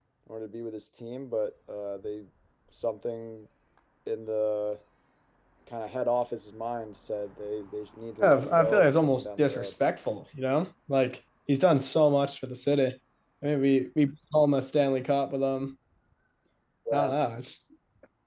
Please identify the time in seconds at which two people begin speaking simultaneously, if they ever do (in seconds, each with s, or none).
8.2 s